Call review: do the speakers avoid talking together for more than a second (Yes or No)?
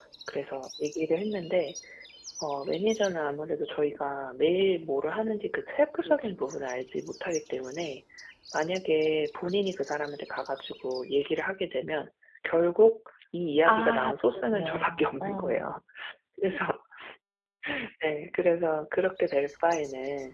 No